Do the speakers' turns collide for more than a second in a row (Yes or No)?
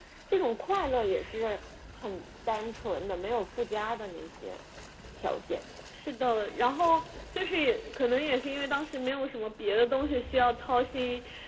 No